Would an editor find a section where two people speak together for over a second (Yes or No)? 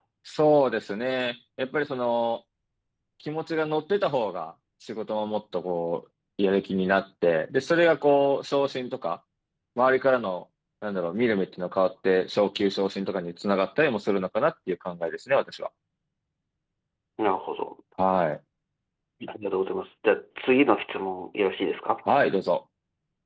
No